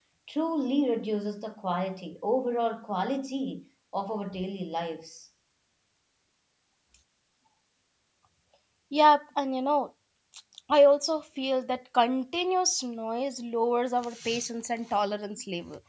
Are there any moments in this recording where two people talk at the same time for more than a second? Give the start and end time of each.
none

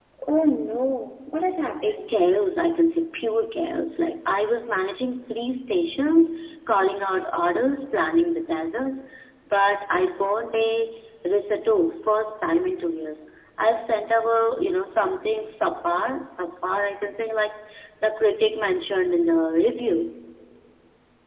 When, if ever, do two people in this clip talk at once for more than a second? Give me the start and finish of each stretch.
none

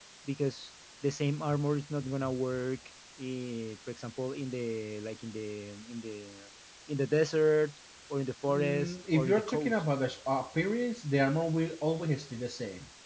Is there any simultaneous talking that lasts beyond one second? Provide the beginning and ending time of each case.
8.6-9.8

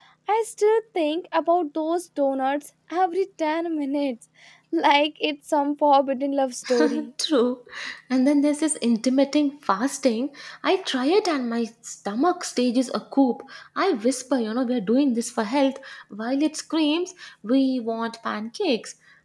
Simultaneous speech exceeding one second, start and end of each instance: none

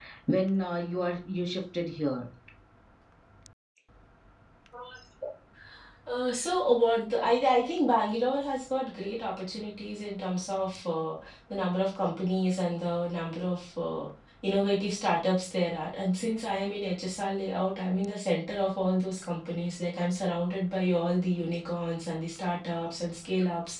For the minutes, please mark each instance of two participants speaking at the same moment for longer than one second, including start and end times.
none

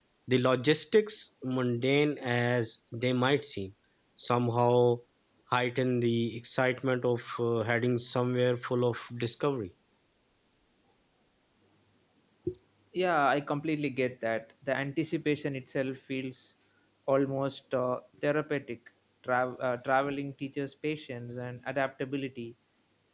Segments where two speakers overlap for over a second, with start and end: none

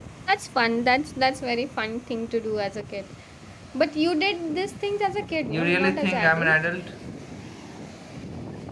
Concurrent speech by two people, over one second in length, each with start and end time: 5.4-6.6

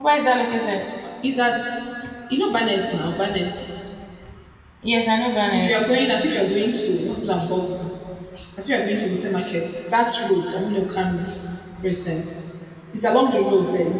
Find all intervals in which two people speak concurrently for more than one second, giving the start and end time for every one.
none

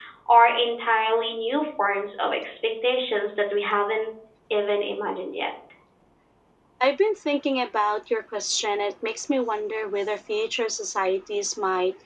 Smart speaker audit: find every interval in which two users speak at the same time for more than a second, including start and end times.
none

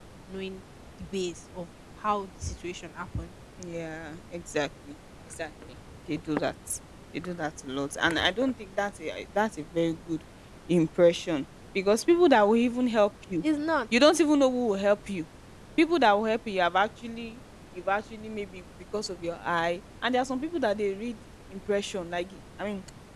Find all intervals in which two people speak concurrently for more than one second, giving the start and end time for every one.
none

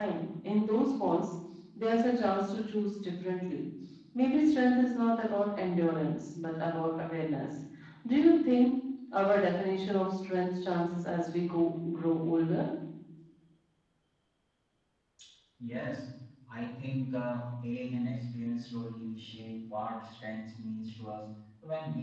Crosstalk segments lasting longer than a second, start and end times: none

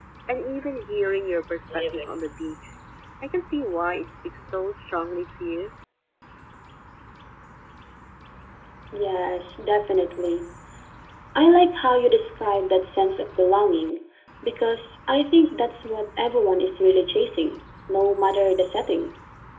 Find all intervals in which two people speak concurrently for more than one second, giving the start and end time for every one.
none

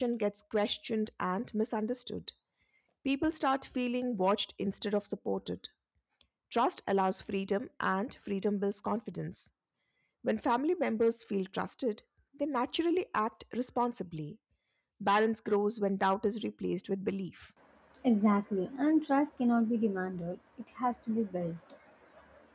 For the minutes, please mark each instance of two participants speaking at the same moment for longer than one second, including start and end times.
none

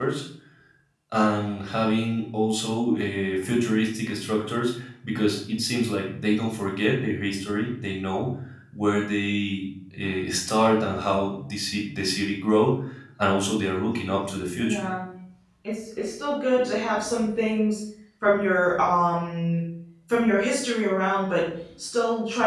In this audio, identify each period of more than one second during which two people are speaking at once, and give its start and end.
none

